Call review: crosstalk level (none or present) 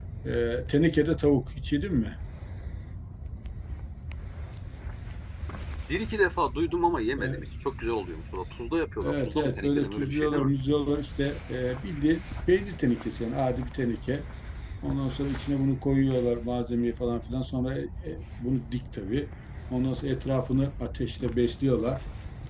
present